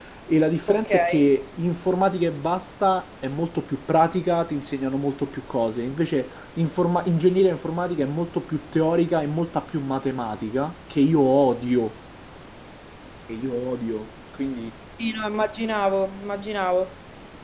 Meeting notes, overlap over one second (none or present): none